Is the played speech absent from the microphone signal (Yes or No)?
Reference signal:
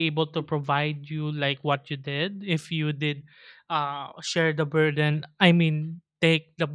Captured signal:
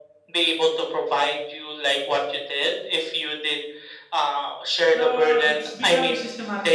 No